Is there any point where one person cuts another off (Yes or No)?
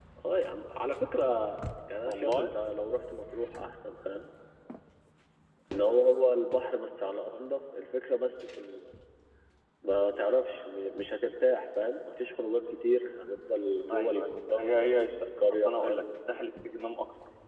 Yes